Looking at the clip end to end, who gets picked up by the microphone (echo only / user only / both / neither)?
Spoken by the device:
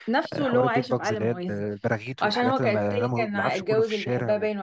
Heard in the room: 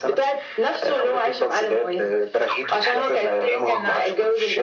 both